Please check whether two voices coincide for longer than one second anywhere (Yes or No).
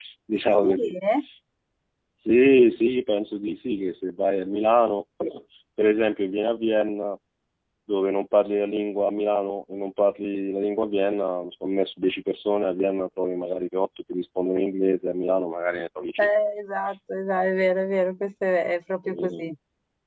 No